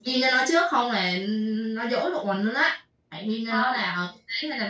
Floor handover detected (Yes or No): No